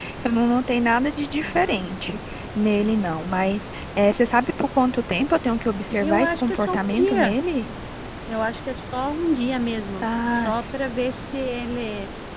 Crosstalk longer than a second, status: present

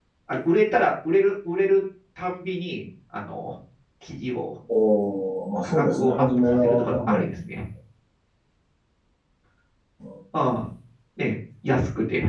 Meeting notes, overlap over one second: present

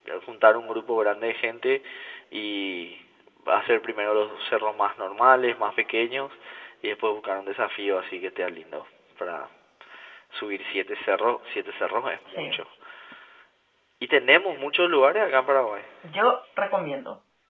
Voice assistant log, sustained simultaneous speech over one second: none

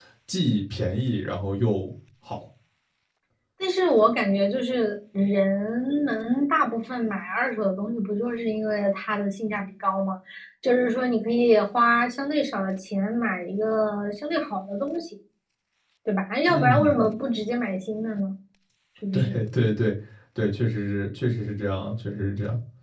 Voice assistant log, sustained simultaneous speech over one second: none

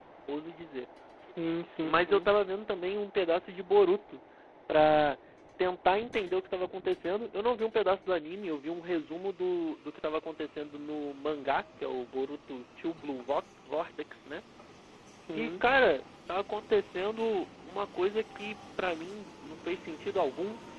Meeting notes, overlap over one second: none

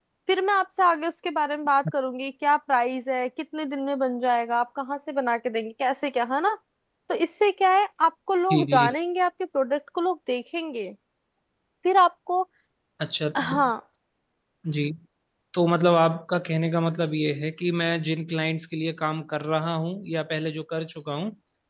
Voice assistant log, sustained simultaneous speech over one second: none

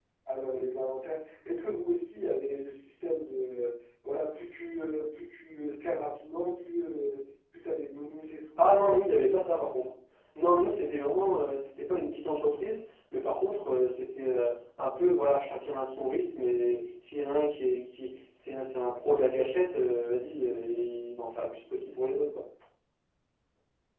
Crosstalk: none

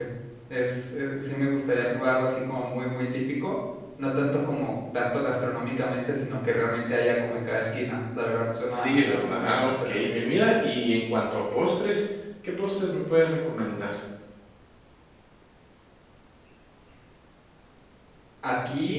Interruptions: present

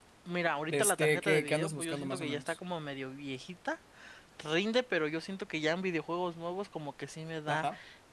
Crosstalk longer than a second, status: present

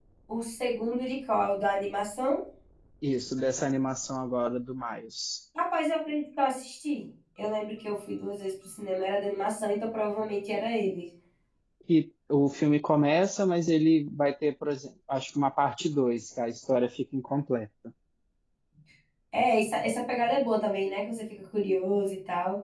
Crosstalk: none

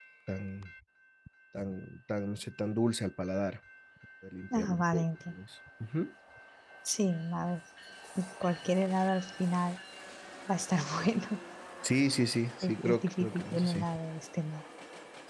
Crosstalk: present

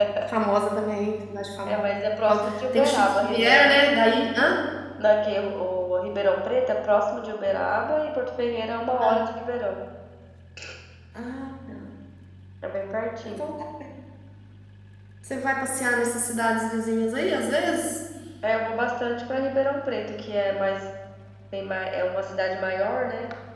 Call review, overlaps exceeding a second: present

